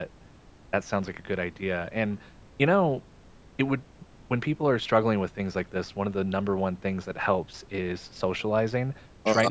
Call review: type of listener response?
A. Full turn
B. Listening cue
B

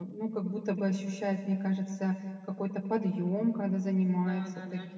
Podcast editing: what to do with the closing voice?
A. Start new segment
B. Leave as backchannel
A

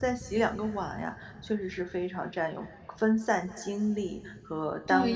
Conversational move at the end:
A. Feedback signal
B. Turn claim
B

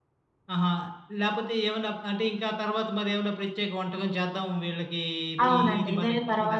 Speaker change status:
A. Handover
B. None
A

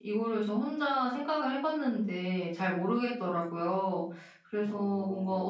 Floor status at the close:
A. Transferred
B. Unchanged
B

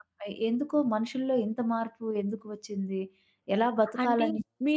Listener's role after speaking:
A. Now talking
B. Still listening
A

